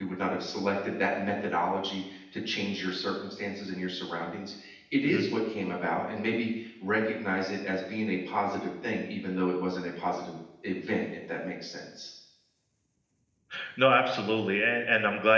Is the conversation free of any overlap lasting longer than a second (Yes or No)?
Yes